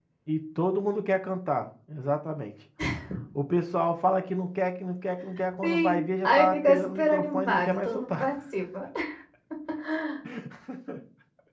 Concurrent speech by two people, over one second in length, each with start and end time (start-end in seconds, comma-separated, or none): 5.6-8.3